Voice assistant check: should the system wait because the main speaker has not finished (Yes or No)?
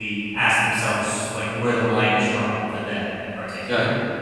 No